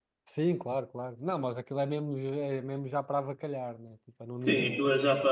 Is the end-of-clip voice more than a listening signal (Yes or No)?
Yes